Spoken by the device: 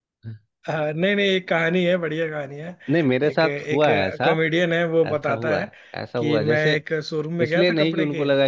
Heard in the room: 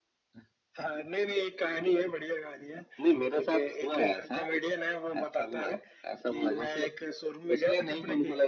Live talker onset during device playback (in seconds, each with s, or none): none